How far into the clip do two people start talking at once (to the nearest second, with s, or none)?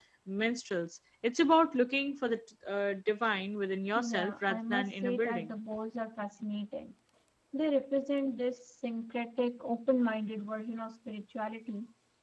4 s